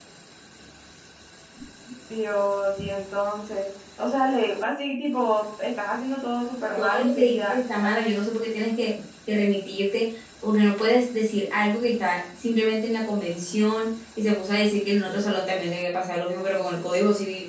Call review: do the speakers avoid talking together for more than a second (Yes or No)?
No